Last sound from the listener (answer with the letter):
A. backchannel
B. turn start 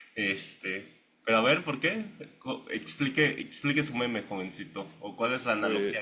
A